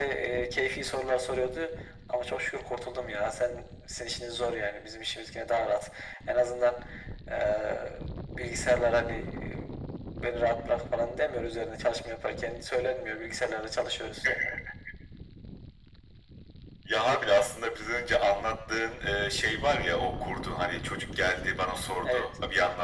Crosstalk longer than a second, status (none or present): none